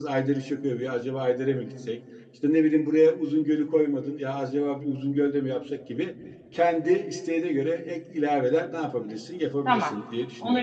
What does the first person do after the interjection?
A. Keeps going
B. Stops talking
B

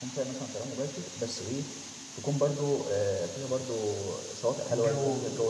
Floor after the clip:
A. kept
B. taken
A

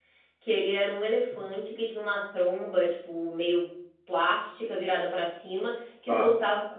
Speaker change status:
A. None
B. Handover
A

